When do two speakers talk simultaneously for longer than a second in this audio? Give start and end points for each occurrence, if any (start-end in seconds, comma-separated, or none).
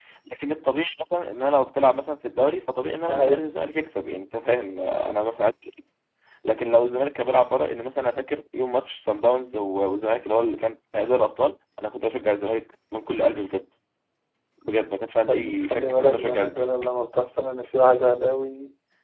15.3-16.8